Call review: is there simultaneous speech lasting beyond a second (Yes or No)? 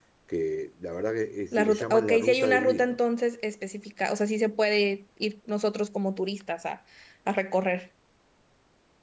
Yes